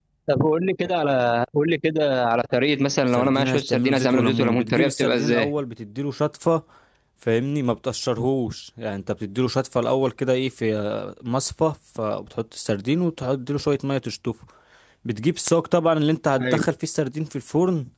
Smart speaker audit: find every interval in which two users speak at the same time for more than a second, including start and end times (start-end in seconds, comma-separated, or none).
3.1-5.5